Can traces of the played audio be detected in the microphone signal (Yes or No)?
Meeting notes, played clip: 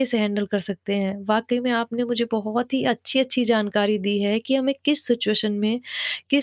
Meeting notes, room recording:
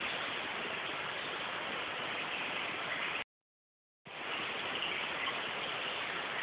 No